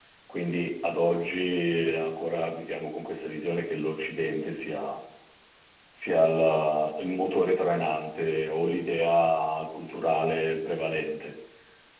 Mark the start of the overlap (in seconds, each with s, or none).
none